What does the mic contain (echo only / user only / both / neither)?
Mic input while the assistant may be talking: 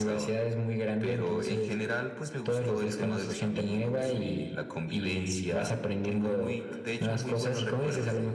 echo only